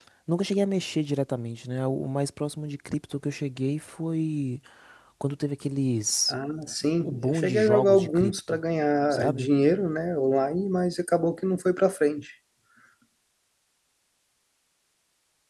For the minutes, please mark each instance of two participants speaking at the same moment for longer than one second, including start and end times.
7.0-8.6

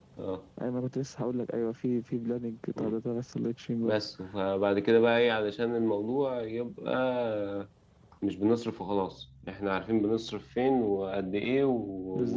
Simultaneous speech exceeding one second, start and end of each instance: none

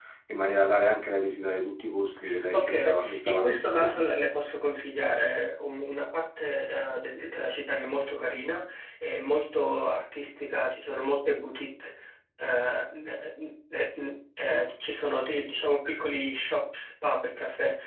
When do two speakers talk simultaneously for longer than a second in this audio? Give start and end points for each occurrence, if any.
2.5-4.0

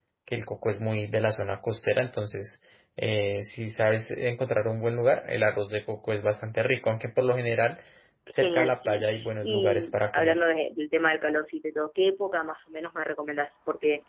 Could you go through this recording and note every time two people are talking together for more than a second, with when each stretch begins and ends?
8.4-10.4

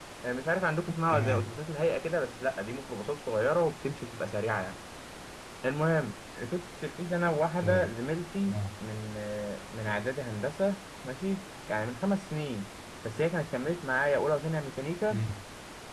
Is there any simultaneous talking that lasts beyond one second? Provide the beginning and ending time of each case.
none

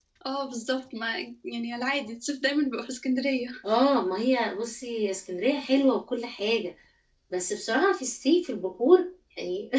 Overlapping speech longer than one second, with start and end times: none

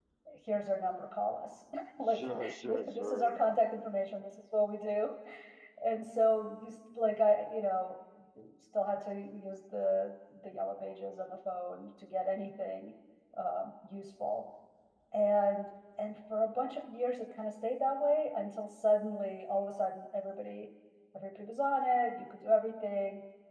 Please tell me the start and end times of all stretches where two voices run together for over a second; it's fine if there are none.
2.1-3.6

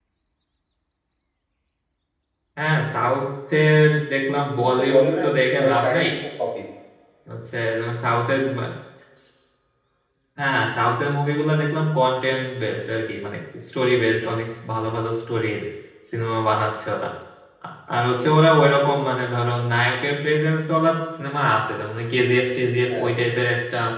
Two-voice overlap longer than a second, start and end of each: 4.6-6.1

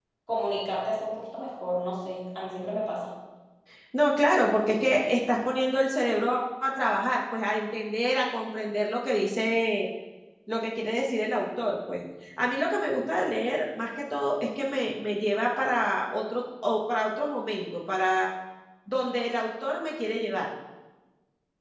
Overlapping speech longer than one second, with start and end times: none

